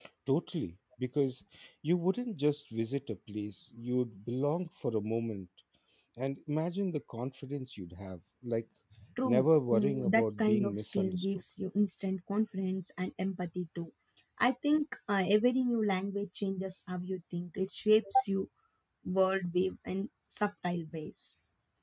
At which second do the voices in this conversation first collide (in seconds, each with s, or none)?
9.2 s